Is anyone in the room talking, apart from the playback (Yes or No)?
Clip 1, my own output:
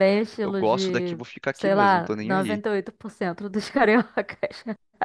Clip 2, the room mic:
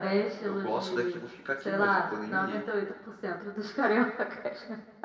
No